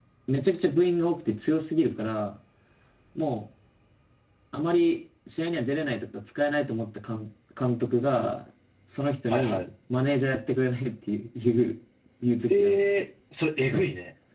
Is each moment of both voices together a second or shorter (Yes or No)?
Yes